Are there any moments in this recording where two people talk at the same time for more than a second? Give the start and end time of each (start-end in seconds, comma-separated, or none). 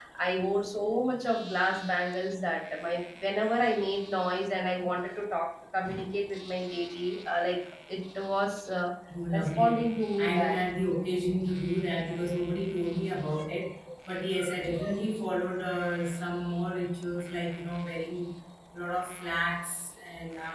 9.3-10.6